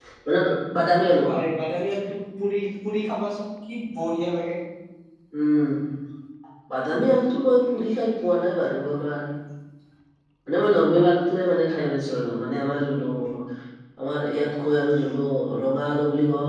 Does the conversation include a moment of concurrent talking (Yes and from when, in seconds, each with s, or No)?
No